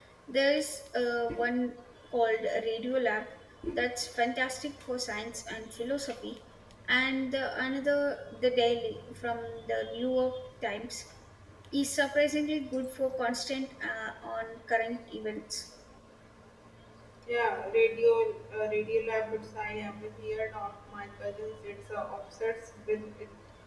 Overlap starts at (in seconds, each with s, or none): none